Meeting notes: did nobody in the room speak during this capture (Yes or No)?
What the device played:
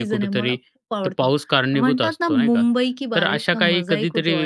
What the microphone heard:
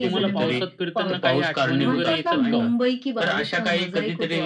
No